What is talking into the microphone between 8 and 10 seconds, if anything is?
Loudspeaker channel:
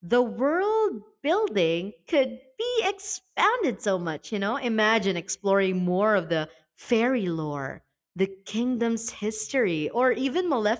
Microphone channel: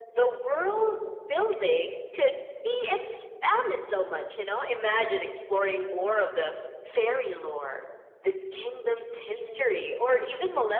both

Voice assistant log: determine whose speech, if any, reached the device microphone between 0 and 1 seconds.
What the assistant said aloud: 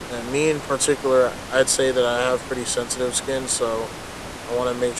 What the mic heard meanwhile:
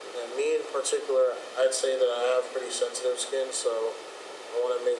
echo only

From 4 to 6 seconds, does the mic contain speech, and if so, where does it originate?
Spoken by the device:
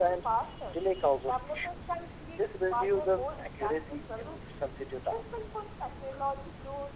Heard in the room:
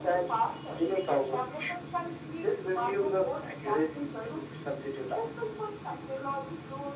echo only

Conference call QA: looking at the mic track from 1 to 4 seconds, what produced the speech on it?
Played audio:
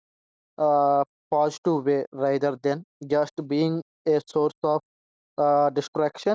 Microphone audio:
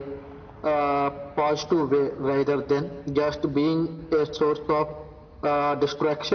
echo only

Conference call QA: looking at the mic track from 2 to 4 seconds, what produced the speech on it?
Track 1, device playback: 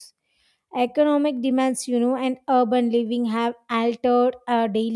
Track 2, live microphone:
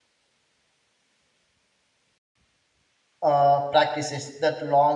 user only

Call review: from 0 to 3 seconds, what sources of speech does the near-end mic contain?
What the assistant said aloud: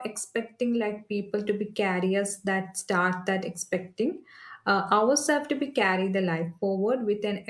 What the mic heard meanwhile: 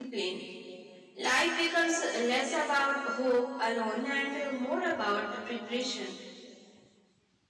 user only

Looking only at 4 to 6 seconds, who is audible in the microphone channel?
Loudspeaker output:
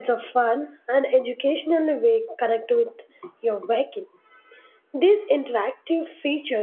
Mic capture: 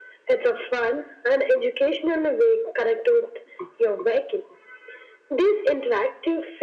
echo only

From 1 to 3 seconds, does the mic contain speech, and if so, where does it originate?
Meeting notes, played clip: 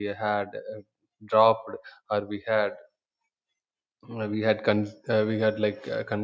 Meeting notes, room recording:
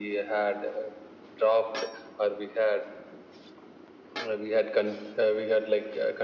echo only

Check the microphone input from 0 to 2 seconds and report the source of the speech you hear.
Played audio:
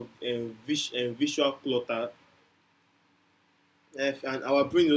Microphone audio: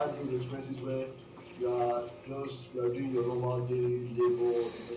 user only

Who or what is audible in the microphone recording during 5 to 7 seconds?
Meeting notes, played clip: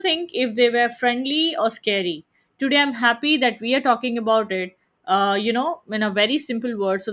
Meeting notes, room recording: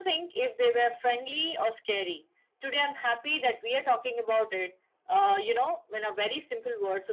echo only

